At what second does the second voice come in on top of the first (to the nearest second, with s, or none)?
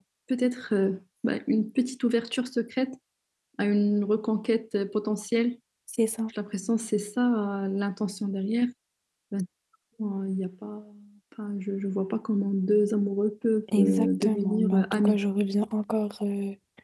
14 s